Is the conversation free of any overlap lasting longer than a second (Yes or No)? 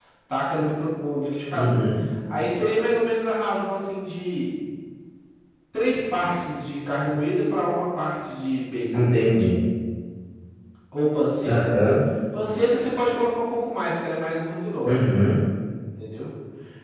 Yes